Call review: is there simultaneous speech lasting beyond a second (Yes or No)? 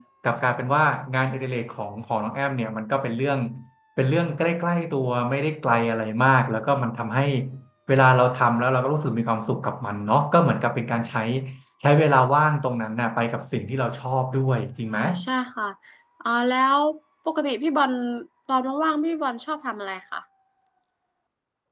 No